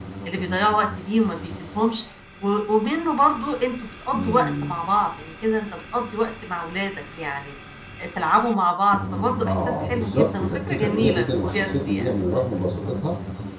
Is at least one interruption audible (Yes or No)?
Yes